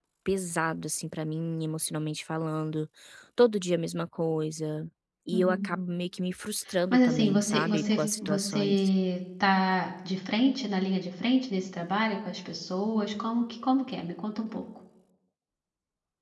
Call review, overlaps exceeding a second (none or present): present